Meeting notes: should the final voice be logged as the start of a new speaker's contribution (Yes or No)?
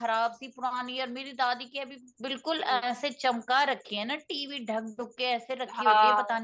Yes